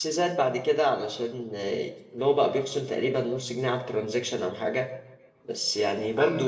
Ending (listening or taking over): listening